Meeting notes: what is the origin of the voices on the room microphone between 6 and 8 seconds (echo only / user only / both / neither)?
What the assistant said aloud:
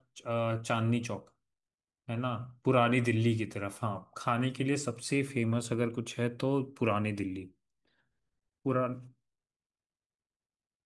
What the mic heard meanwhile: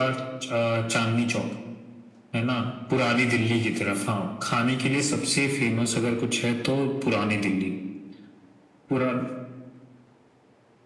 echo only